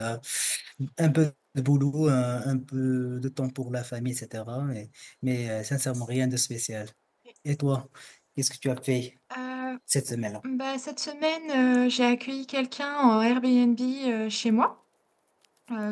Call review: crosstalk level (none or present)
none